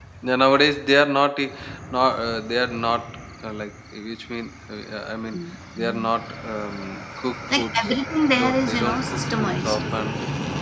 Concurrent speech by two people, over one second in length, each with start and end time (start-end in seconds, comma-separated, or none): 8.4-9.8